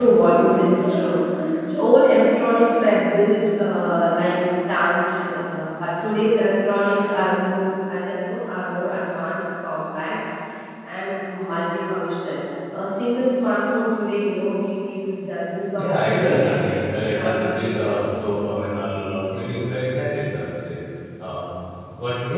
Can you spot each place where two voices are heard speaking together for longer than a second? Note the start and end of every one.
15.7-17.8

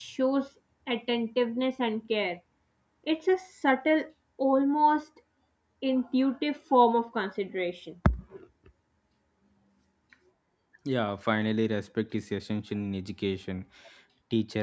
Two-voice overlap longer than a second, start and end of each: none

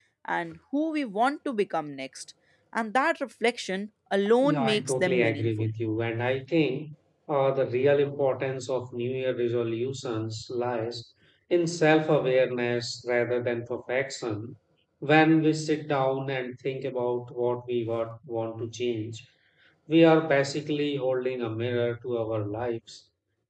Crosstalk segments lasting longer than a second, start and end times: 4.4-5.7

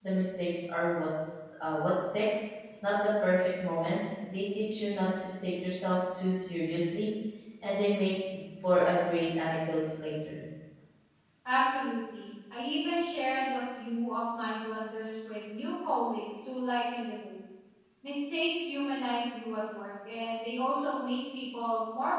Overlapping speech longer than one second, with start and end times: none

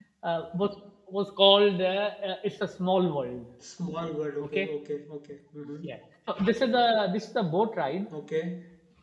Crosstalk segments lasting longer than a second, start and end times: none

